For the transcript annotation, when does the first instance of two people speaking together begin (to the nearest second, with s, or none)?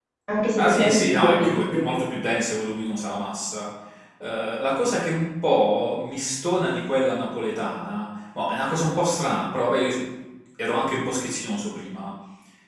1 s